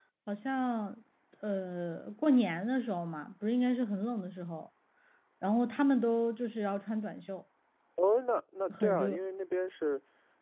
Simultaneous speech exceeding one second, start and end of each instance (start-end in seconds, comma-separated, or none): none